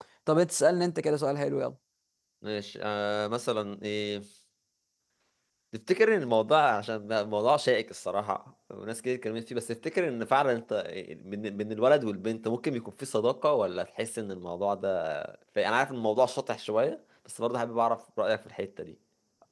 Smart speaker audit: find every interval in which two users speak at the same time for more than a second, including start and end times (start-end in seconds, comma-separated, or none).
none